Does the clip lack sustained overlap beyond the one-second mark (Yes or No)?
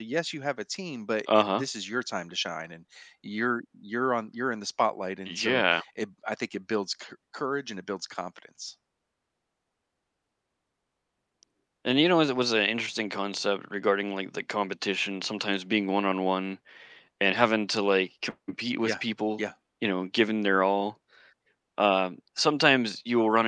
Yes